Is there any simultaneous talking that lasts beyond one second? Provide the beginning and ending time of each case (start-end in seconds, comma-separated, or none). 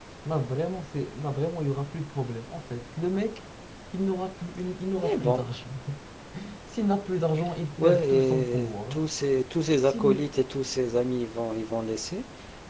7.8-9.1